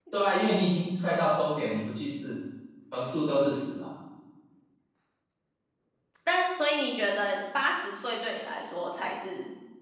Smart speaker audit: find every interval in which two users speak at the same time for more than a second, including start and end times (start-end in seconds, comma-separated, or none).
none